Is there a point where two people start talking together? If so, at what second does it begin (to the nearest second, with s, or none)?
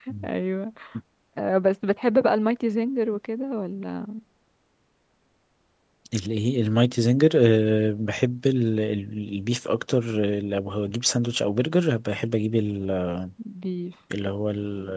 none